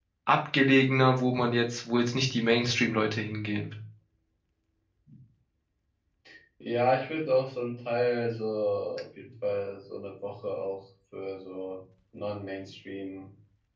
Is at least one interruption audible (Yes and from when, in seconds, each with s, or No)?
No